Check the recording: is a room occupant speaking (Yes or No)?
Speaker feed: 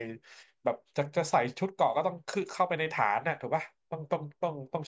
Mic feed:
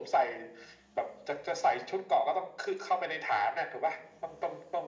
No